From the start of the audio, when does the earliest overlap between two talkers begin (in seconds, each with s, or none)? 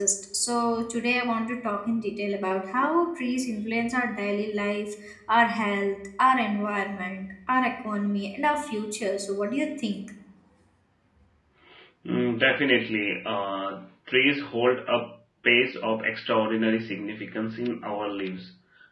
none